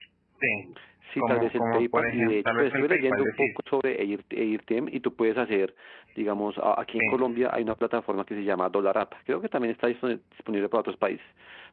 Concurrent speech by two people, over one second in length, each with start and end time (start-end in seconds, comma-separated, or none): 1.2-3.7